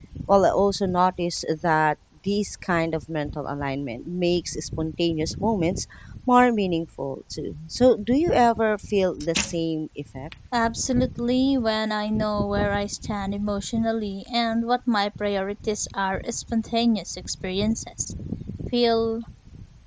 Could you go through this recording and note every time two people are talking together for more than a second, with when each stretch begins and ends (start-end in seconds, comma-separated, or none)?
none